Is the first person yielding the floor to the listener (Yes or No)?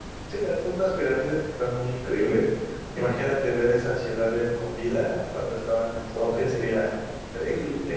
Yes